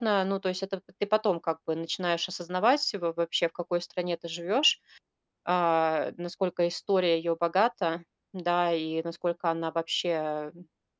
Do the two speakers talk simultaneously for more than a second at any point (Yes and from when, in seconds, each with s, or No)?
No